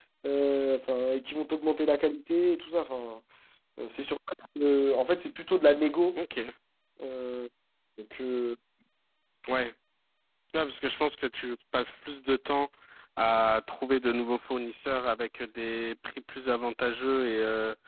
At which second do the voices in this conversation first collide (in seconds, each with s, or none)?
none